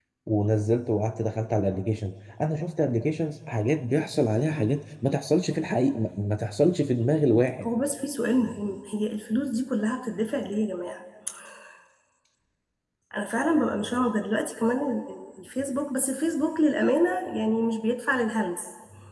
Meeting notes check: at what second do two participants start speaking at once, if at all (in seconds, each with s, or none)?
none